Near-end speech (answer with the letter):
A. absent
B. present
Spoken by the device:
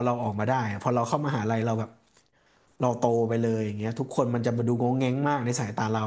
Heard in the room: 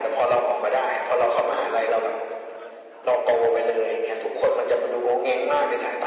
A